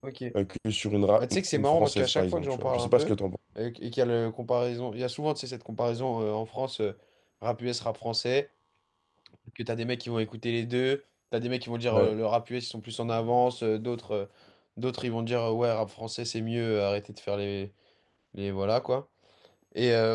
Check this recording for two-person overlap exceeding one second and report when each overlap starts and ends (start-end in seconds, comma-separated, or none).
1.2-3.1